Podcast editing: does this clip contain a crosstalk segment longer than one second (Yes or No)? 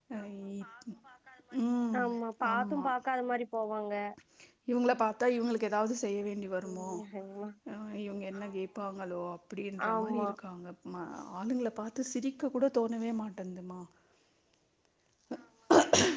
No